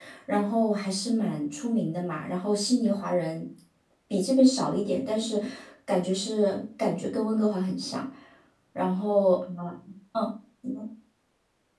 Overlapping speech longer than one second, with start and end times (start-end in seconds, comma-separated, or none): none